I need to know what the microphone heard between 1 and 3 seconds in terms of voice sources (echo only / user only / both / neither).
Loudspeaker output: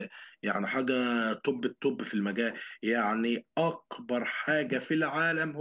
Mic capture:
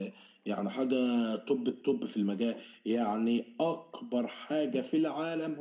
echo only